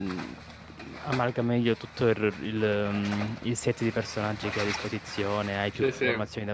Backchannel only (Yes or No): Yes